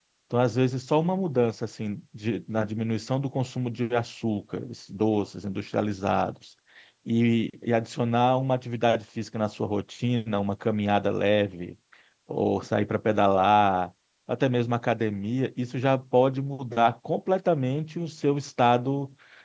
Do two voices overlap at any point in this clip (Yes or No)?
No